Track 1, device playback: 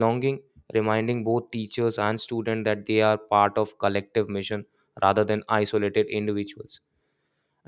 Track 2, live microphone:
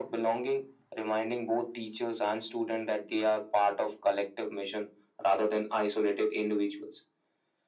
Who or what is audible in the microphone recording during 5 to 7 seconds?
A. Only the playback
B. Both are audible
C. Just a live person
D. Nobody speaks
A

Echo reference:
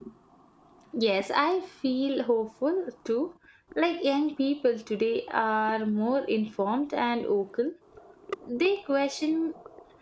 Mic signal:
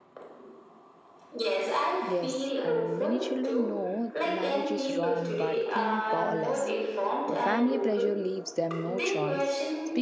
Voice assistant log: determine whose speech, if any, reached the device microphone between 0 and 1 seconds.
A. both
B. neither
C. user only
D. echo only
B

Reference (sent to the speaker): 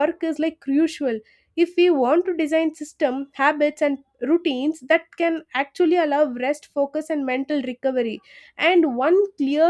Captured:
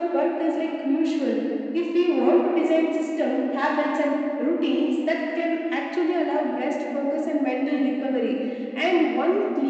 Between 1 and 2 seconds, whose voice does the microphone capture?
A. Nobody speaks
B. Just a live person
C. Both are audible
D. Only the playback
D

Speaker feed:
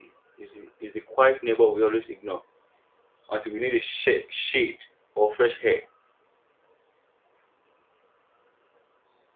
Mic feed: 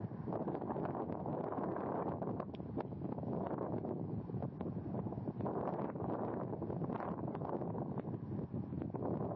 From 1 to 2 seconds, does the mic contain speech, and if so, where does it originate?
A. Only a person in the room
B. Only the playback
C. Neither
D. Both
C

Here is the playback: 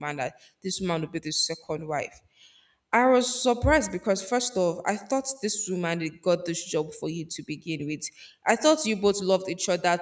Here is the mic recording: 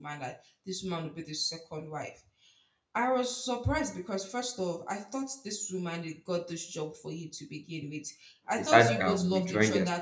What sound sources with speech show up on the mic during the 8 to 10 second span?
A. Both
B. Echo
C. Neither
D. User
A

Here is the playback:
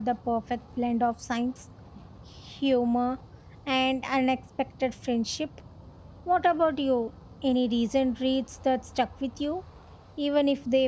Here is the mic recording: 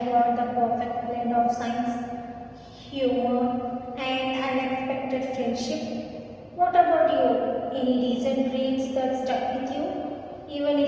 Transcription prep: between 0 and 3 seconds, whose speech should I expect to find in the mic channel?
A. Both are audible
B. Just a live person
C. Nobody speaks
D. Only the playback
D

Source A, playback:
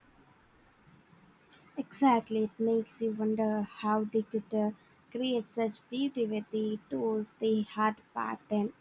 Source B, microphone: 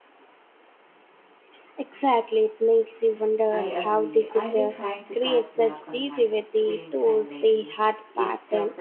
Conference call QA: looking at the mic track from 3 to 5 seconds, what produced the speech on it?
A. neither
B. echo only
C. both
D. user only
C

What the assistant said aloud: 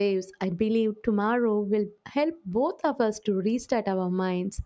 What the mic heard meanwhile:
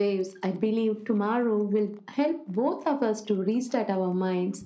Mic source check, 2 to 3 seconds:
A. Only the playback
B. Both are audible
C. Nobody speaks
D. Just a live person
A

